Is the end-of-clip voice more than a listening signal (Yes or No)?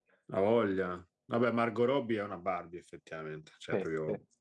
No